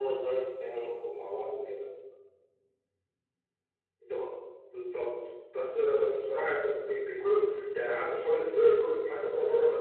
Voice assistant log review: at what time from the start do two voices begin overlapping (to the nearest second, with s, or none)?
none